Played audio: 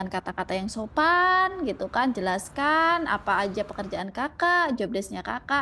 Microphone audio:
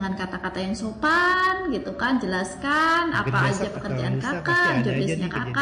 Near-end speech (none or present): present